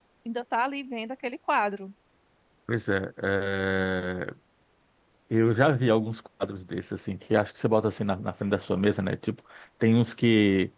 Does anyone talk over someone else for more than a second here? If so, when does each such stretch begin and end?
none

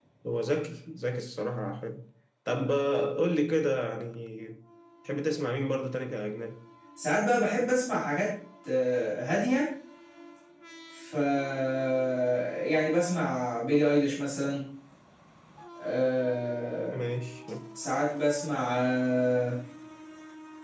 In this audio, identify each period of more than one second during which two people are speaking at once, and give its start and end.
none

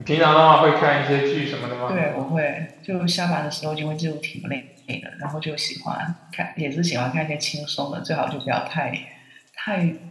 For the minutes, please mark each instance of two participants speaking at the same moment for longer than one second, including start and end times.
none

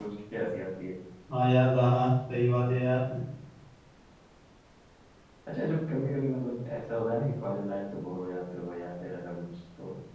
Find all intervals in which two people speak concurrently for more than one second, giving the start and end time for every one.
none

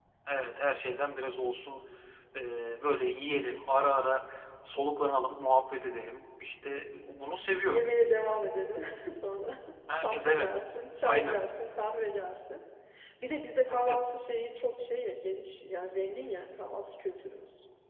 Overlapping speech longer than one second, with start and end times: none

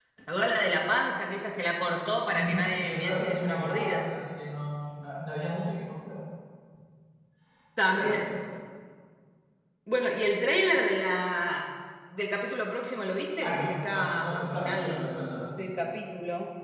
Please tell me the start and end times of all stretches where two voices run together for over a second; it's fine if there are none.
2.3-4.1, 13.4-15.1

